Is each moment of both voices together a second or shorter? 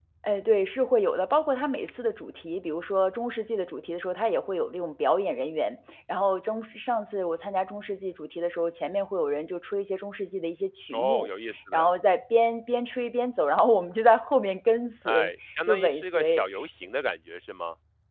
No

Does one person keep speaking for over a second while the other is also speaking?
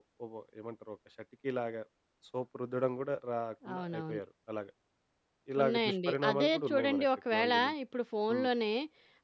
Yes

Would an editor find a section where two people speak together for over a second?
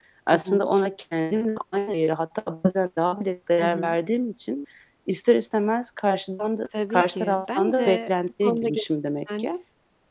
Yes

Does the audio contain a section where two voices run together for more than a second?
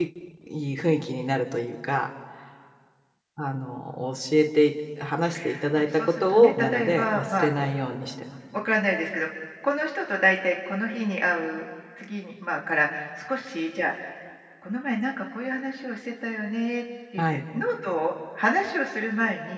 Yes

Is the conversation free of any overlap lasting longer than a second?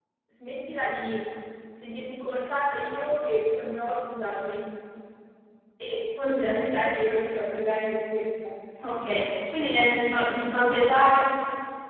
Yes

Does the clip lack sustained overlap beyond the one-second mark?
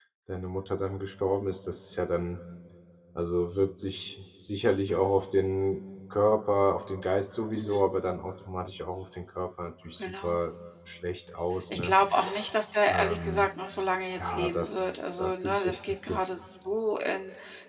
No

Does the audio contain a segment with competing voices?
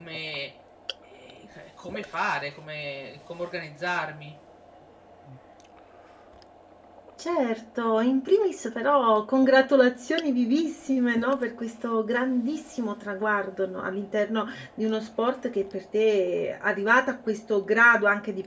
No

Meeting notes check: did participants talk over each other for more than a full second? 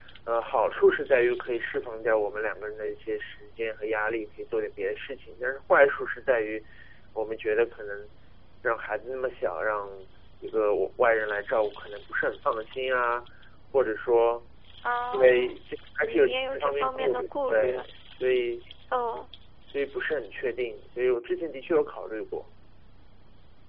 Yes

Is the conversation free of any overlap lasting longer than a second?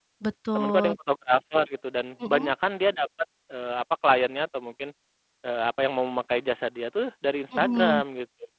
Yes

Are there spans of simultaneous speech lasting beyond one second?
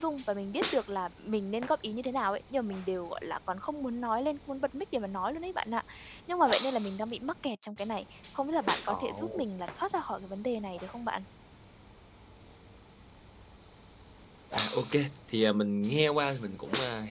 No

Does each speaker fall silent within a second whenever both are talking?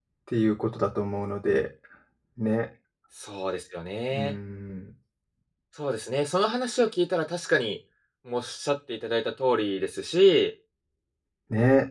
Yes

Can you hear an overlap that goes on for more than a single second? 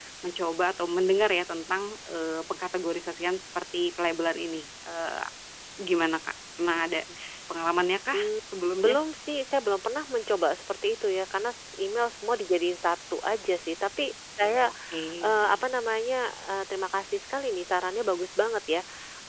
No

